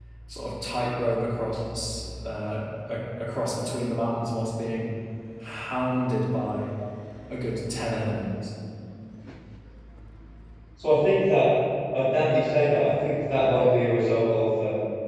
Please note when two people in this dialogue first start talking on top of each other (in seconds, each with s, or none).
none